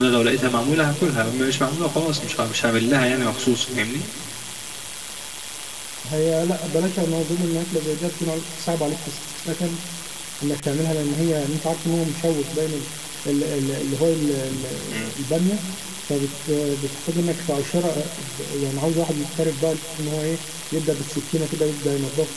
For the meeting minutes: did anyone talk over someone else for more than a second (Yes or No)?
No